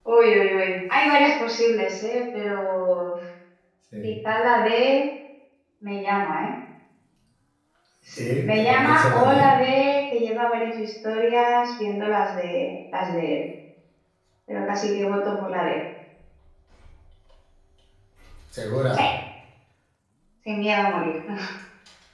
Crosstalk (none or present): present